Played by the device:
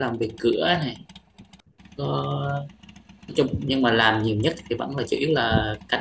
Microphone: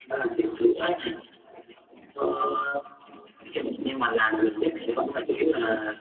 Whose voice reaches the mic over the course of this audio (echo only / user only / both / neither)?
echo only